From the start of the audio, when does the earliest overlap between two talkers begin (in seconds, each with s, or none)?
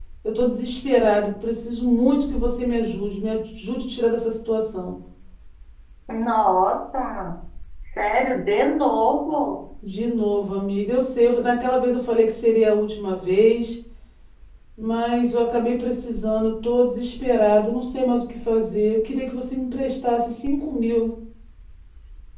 none